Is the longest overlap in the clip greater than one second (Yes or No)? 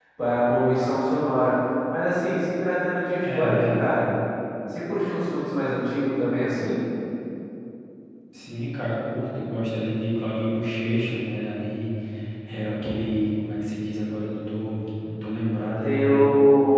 No